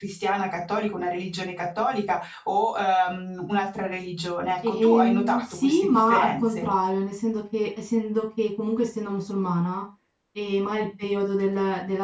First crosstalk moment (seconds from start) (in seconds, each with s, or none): 4.6 s